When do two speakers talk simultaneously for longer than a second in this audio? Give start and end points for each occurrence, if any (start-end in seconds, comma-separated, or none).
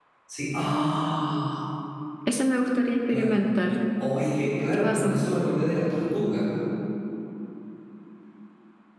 none